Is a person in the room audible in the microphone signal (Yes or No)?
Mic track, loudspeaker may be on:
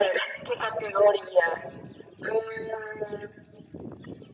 No